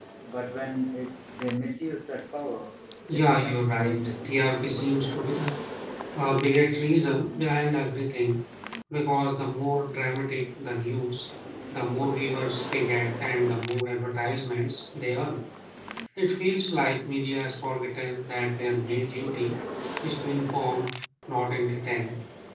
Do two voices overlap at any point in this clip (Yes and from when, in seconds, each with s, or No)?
Yes, from 3.1 s